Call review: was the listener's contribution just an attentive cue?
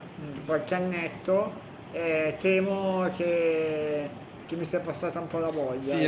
No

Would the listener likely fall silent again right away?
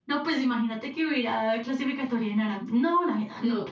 Yes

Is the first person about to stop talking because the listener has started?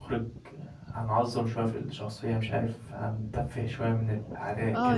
Yes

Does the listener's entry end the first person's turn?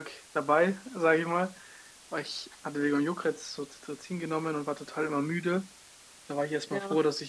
No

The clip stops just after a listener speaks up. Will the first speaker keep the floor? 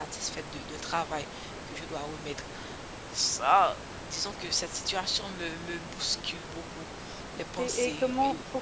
No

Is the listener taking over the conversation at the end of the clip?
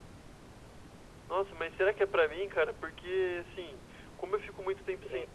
No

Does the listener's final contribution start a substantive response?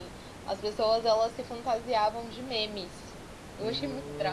Yes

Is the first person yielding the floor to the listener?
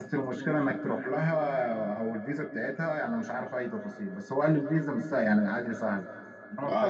Yes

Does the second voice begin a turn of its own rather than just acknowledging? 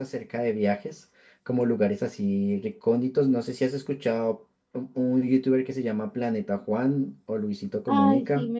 Yes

